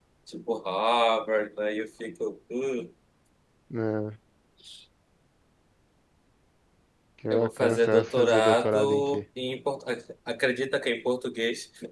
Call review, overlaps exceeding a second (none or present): present